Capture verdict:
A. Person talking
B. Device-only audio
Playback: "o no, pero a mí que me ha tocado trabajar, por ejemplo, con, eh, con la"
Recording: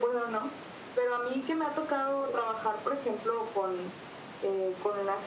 B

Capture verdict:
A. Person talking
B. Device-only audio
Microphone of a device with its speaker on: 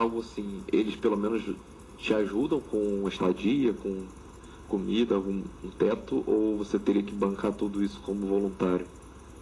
B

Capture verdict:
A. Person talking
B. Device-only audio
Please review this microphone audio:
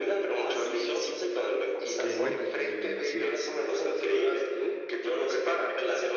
A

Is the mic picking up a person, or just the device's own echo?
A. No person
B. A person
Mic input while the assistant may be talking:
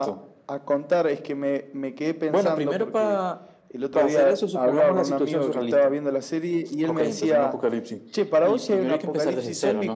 A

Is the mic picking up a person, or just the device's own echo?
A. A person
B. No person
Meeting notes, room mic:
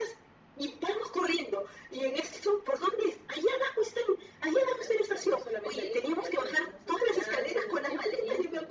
B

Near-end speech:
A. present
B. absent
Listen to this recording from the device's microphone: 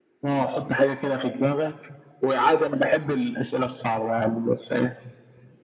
B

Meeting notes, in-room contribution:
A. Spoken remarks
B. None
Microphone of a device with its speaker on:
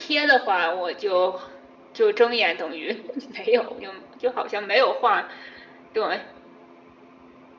B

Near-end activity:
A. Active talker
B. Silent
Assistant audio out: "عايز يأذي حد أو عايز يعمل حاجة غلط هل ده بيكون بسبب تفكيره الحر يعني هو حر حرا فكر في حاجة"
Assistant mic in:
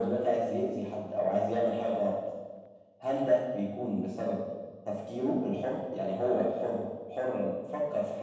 B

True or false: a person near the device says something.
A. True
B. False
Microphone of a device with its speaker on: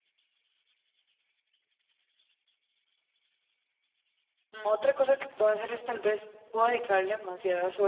A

